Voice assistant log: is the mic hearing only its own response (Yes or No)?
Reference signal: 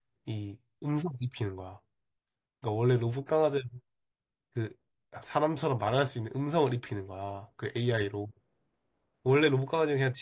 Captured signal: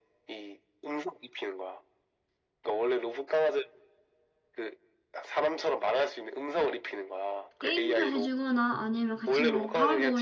No